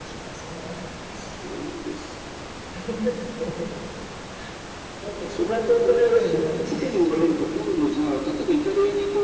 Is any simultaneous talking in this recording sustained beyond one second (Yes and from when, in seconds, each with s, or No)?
Yes, from 5.2 s